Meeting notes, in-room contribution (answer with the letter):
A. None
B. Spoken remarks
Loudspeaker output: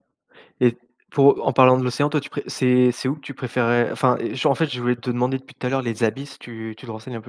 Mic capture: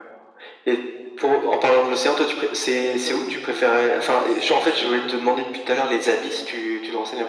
B